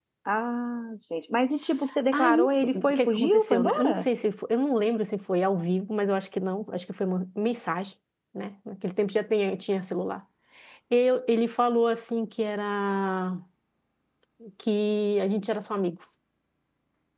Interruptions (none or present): present